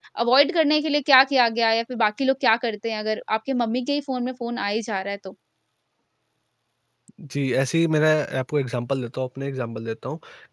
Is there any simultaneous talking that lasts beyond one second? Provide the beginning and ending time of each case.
none

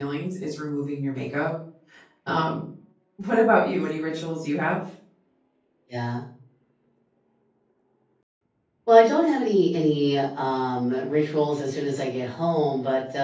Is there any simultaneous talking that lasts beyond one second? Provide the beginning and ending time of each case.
none

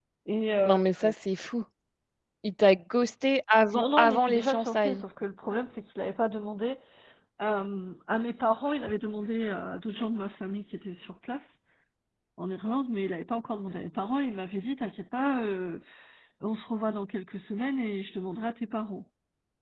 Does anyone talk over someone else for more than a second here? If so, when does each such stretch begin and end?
3.7-5.0

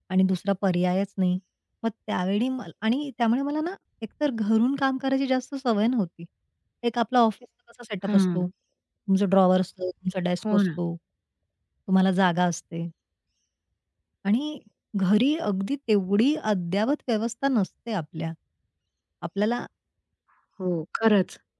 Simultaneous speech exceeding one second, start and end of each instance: none

